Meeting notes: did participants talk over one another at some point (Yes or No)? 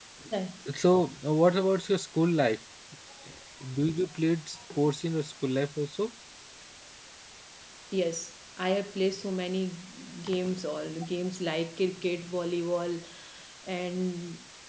No